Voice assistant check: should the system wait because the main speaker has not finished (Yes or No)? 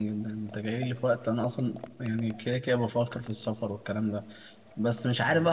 Yes